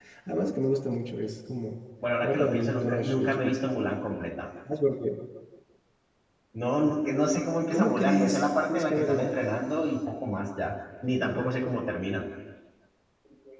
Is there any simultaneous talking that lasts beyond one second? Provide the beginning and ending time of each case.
2.2-3.6, 7.7-9.3

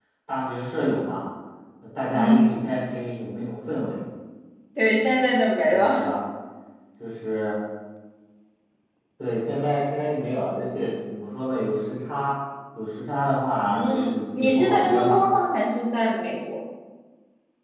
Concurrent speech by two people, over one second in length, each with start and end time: 13.6-15.2

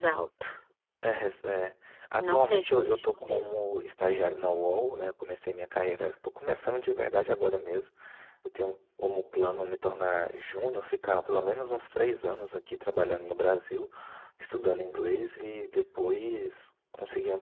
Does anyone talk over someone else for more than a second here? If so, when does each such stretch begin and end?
2.2-3.5

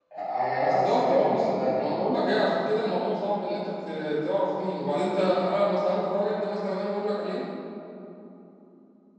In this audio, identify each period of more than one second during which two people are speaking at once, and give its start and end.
0.6-2.0

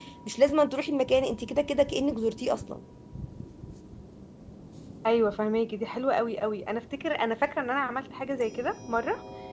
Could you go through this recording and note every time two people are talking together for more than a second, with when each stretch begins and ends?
none

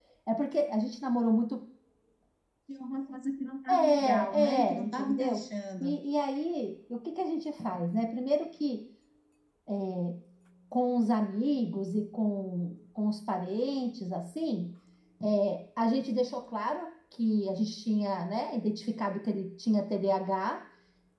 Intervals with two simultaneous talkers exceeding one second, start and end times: 3.7-5.4

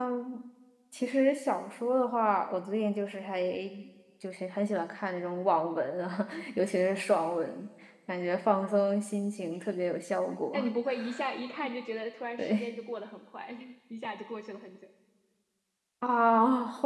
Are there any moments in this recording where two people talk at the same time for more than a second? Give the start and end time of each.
none

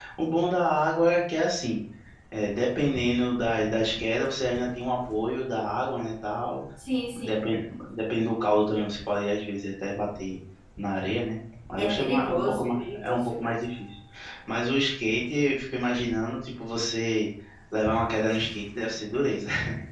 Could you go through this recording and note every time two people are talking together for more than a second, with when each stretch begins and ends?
11.8-13.6

